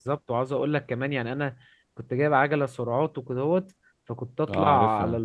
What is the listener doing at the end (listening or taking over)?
listening